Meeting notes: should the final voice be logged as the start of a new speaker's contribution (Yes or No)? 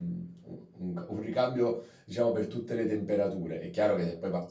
No